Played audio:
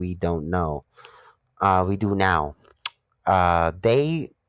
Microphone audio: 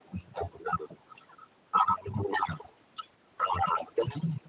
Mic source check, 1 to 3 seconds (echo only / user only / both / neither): echo only